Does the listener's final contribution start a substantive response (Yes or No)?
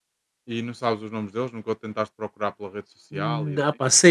Yes